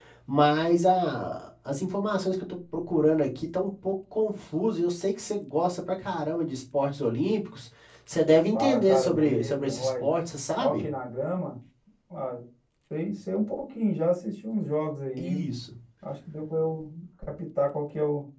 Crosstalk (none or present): present